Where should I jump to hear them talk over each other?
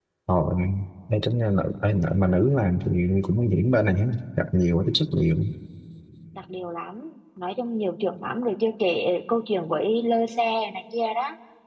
none

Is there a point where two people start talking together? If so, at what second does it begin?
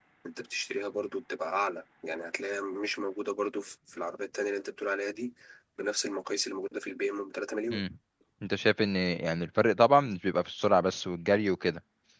none

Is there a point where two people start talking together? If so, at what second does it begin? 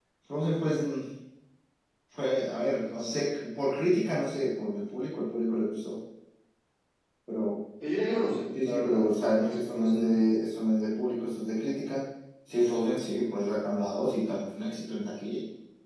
8.6 s

